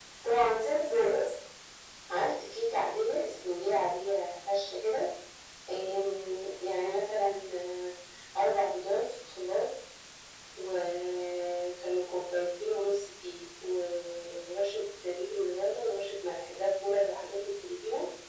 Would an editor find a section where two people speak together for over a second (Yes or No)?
No